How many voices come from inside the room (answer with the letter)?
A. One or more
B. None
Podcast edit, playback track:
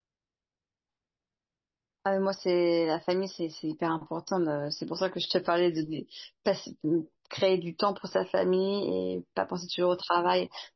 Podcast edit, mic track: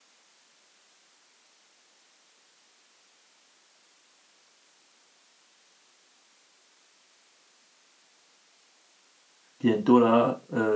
A